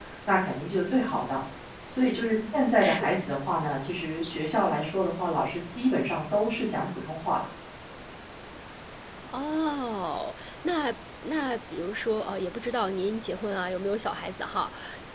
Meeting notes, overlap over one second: none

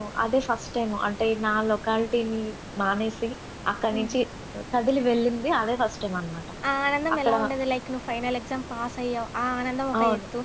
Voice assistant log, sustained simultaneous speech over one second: none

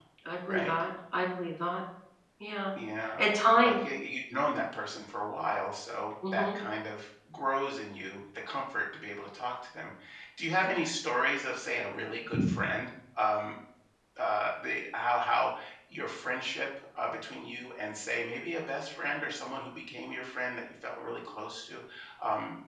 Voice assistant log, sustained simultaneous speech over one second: none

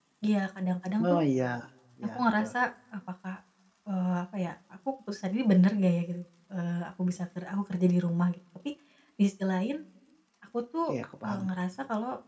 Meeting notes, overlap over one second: none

